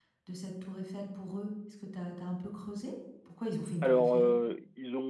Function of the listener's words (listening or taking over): taking over